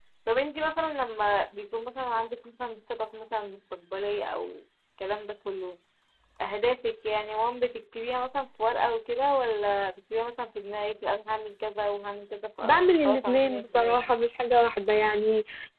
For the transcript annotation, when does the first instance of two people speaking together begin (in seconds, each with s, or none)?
12.6 s